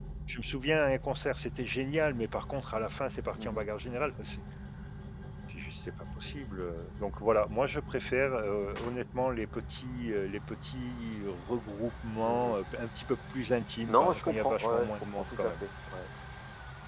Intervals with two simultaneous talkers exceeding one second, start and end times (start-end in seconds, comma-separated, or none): 13.9-15.5